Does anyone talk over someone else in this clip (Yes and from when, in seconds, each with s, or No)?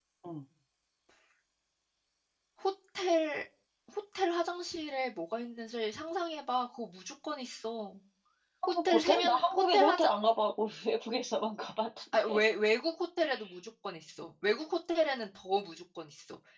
Yes, from 8.8 s